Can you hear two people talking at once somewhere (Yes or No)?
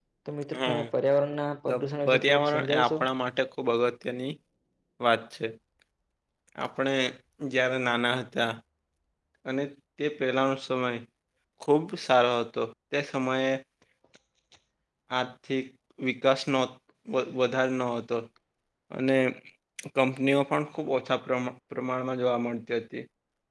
Yes